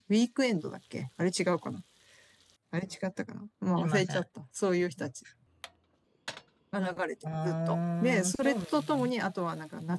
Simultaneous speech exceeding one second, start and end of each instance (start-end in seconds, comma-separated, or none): 7.4-9.0